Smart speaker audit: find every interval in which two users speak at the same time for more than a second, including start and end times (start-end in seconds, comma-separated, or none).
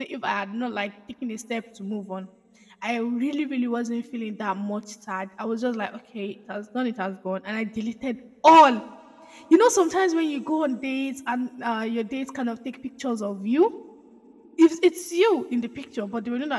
none